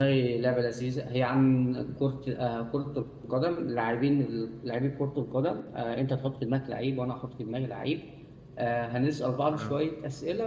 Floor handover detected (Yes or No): No